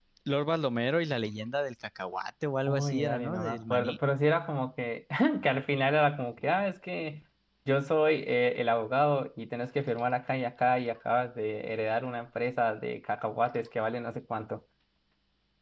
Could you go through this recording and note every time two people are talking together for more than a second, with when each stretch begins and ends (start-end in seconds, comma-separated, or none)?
2.7-4.0